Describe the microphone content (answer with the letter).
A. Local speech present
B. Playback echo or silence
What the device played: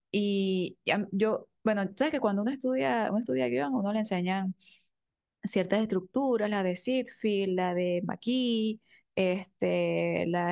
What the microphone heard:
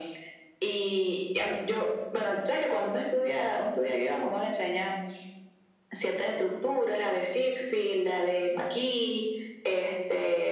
B